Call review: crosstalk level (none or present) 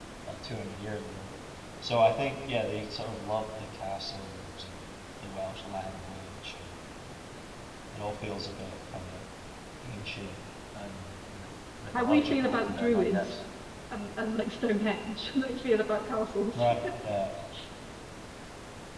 present